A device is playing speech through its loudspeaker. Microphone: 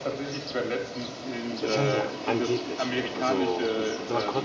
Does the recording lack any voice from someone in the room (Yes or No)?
No